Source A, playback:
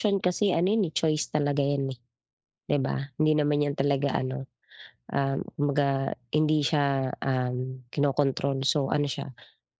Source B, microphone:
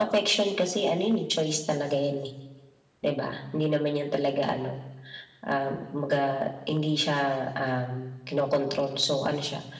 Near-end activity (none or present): none